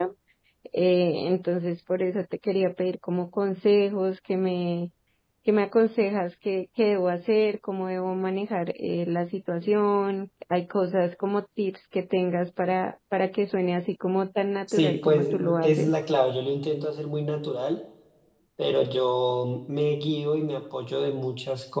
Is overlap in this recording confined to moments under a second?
No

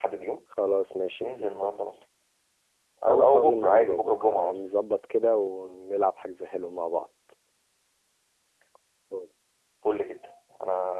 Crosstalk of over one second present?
Yes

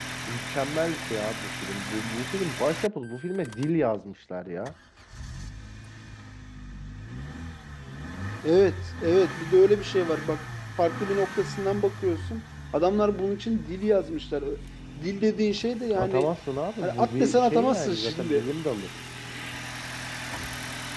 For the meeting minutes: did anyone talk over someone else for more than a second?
Yes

